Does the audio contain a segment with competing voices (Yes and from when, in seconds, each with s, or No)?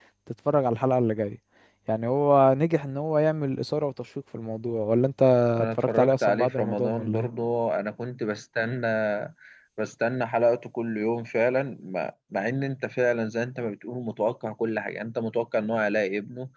Yes, from 5.6 s